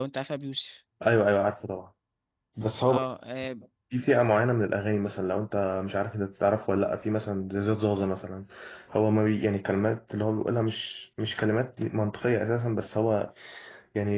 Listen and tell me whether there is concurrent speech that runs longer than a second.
No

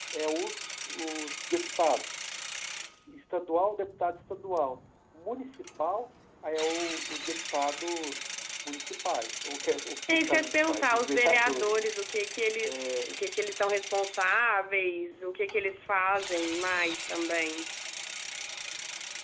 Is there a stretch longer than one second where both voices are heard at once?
Yes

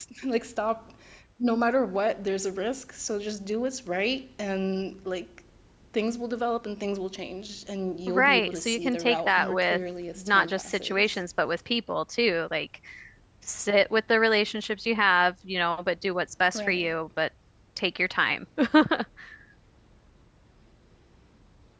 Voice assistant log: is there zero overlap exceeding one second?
No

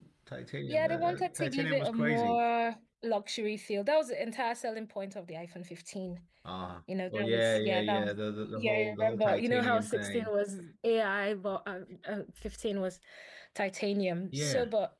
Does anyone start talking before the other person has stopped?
Yes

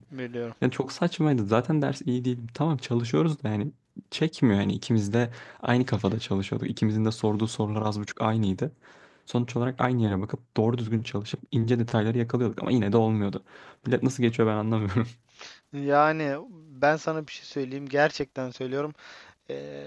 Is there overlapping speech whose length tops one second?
No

